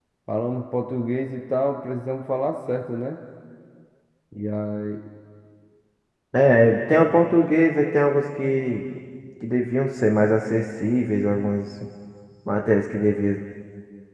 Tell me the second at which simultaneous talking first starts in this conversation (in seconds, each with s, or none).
none